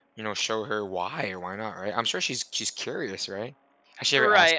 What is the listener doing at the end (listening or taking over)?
taking over